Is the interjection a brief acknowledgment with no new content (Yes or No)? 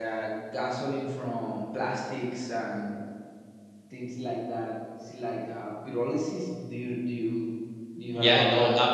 No